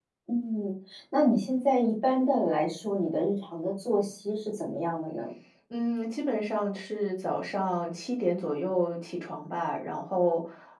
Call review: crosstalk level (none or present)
none